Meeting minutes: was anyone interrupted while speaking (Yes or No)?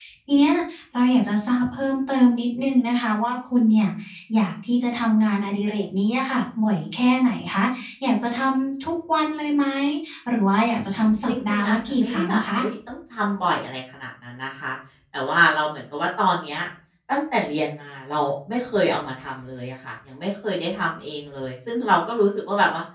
Yes